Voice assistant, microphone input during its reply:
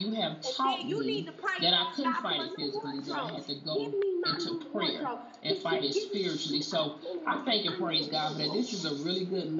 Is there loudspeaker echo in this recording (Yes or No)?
Yes